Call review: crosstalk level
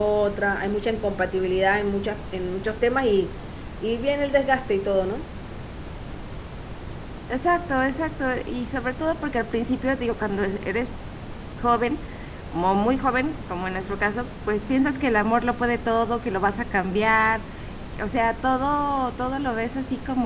none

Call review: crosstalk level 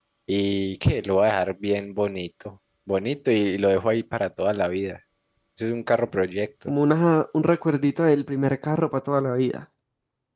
none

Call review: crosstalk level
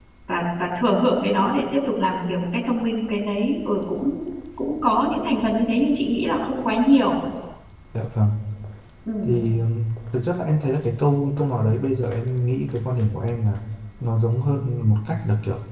none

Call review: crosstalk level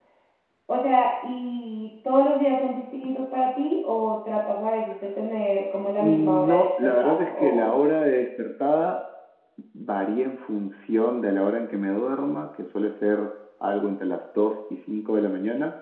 present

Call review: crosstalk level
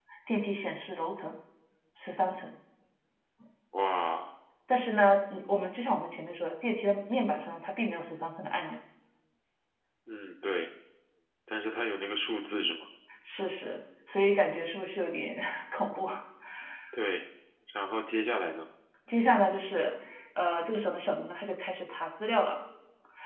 none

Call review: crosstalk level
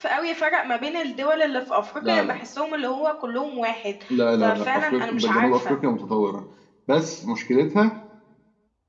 present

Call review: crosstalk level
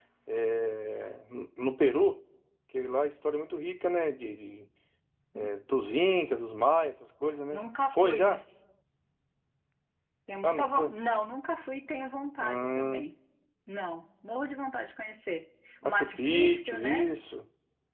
present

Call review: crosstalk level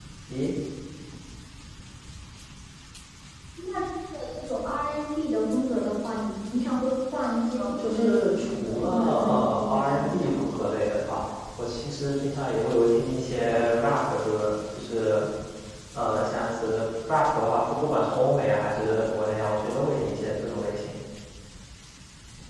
present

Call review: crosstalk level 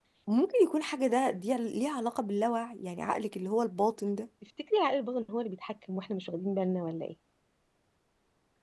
none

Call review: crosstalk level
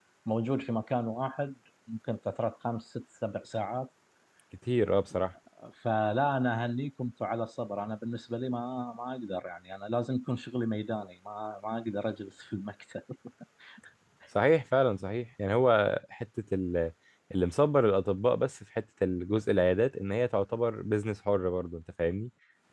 none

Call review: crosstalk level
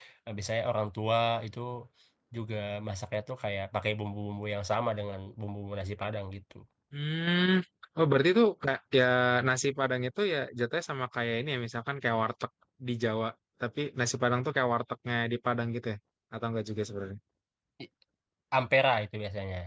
none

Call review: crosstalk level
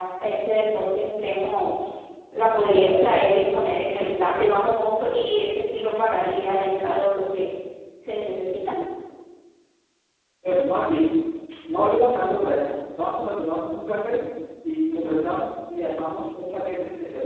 none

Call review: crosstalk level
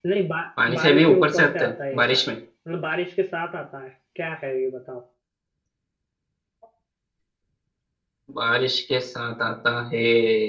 present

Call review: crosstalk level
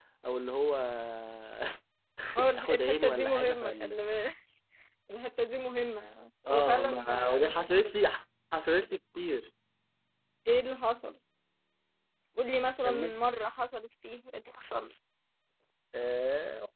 present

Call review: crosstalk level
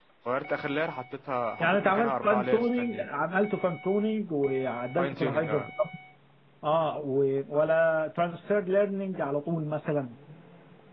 present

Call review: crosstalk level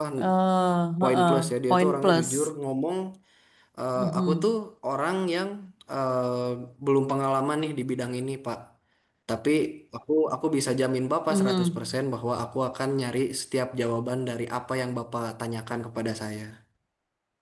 present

